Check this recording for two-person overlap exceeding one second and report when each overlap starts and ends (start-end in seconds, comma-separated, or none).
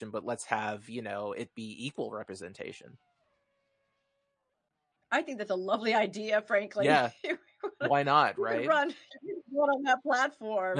none